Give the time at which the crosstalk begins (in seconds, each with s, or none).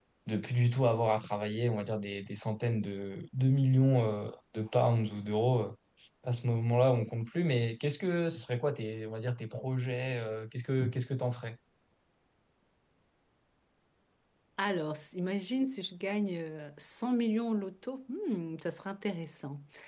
none